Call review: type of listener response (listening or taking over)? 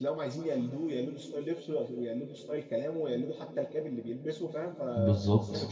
listening